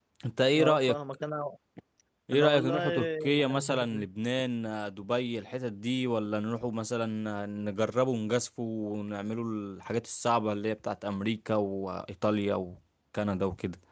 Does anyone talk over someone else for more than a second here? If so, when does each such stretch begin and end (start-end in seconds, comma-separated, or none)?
2.3-4.1